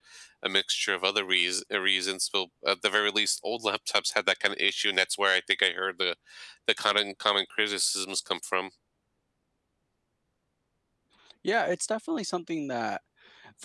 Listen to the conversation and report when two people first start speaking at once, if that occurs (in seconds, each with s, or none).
none